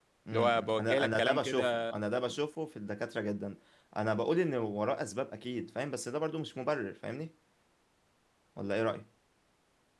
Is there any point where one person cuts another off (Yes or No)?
Yes